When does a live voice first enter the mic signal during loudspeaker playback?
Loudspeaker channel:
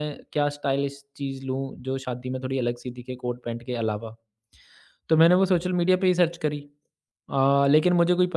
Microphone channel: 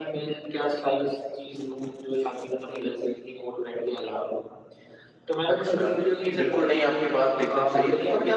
5.5 s

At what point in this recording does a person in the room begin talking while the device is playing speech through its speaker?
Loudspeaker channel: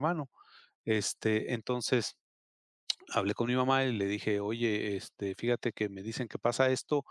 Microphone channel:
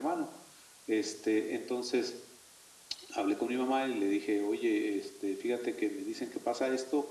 none

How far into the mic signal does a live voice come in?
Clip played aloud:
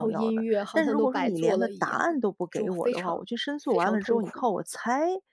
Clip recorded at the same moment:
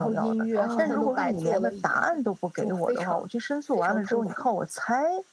0.5 s

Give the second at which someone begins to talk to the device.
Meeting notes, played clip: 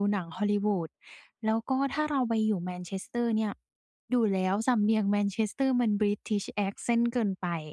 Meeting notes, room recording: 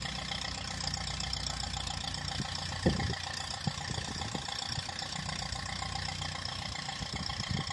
none

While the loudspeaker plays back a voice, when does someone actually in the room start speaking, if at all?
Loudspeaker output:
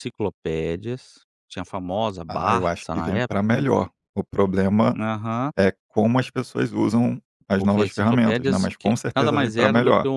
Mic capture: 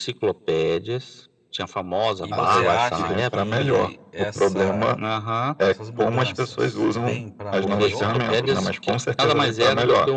2.2 s

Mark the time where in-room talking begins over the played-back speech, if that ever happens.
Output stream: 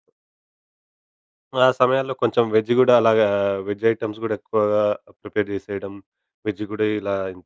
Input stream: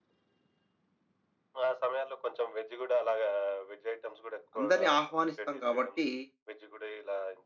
4.6 s

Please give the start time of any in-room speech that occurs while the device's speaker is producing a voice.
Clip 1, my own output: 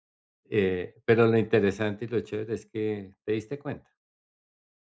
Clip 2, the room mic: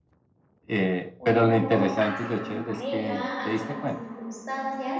1.2 s

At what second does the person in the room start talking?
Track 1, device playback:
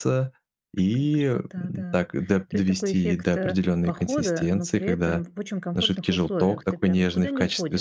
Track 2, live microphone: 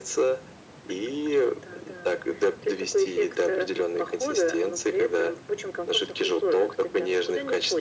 none

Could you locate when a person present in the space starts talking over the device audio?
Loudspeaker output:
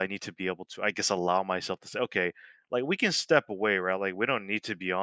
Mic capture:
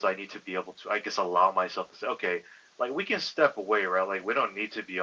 none

